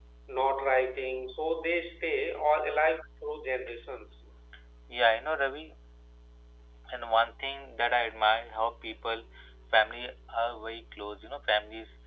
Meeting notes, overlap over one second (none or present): none